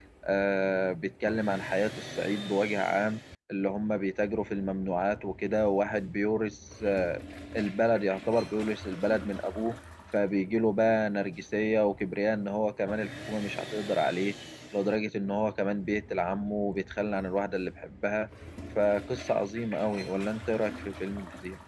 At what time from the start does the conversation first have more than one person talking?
none

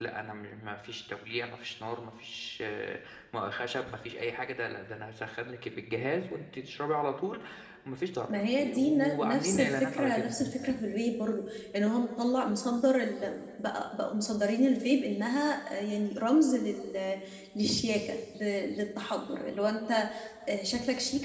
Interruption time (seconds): 8 s

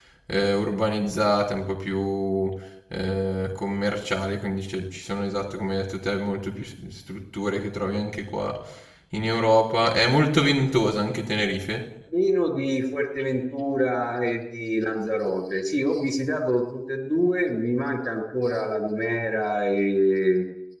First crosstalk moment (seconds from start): none

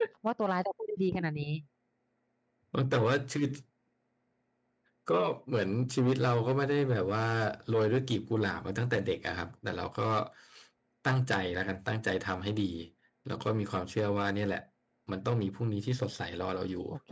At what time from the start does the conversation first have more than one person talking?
none

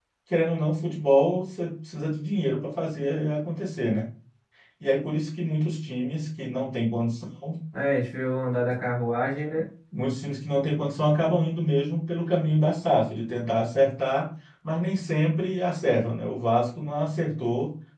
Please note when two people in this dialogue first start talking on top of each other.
none

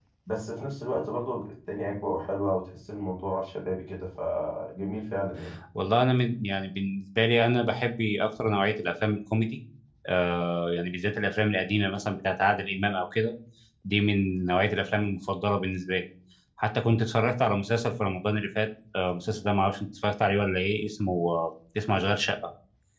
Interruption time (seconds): none

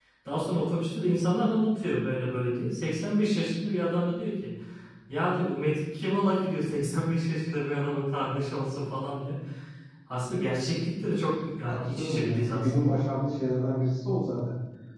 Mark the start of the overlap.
12 s

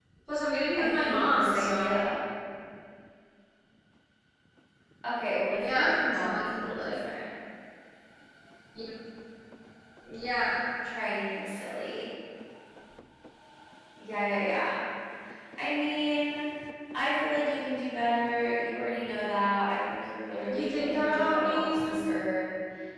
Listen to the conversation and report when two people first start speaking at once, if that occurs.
1 s

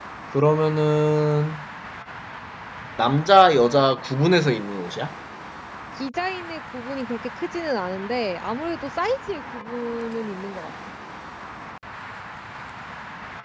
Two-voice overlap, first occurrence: none

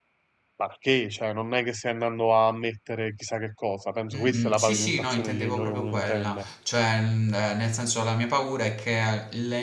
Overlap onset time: 4 s

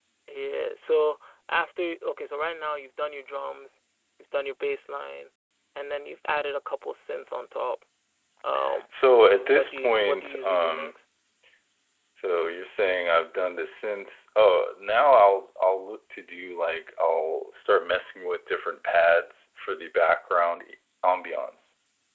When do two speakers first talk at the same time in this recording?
9 s

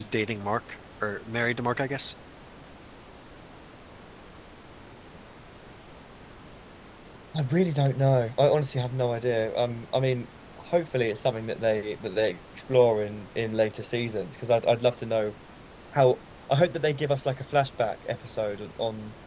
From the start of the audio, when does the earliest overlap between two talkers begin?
none

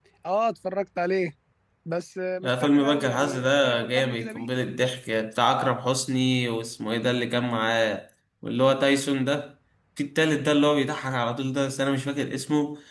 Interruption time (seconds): 2 s

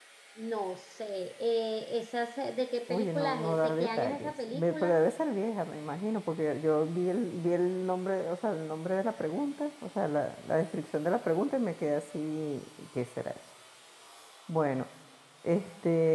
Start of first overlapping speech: 3 s

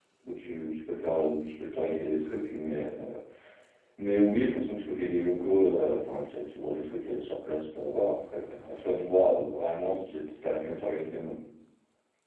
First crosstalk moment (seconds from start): none

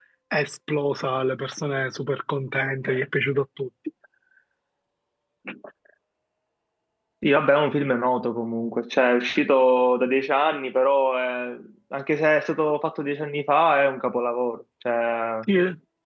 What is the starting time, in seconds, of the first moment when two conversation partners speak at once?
none

